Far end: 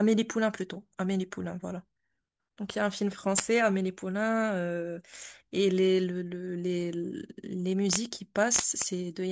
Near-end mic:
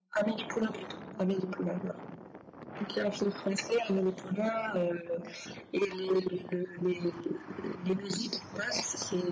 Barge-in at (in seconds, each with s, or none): none